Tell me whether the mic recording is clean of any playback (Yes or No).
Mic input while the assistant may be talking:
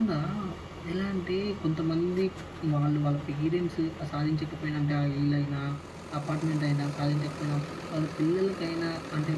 Yes